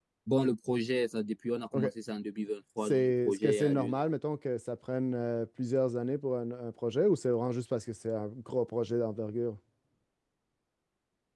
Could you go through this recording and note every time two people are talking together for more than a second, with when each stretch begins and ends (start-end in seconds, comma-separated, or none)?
2.8-4.1